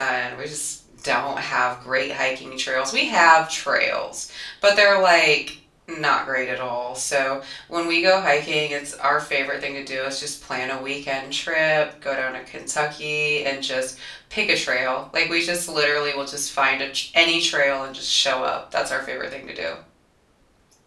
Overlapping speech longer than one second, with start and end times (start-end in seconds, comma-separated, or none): none